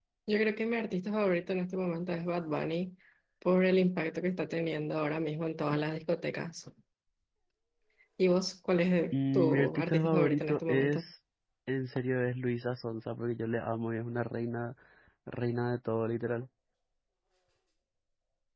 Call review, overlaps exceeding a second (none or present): present